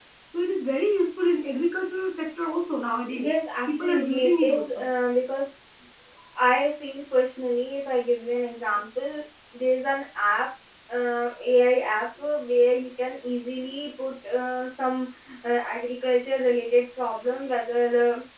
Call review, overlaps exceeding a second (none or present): present